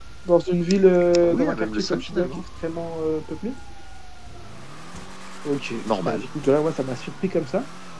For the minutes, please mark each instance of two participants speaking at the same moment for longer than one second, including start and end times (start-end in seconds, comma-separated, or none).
1.2-2.4